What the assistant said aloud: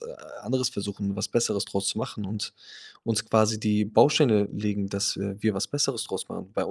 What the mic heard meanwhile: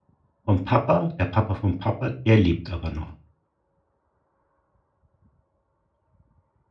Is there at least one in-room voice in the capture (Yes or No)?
Yes